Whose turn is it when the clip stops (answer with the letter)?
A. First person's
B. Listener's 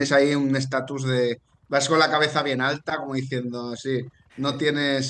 A